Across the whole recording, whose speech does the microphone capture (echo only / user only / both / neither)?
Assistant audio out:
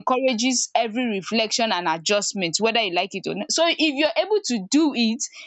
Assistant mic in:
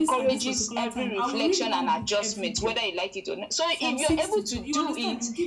both